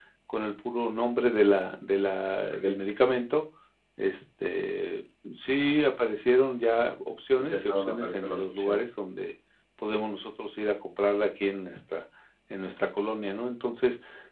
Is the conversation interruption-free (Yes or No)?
No